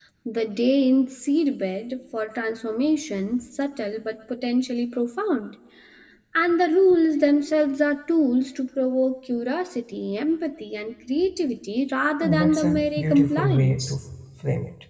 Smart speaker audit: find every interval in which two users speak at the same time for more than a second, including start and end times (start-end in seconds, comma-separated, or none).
12.2-13.9